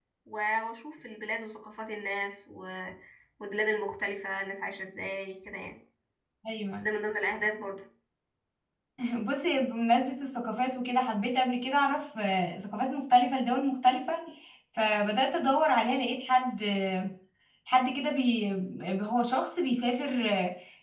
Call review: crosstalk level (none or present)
none